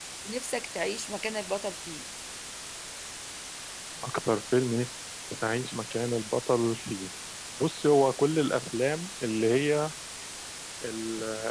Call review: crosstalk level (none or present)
none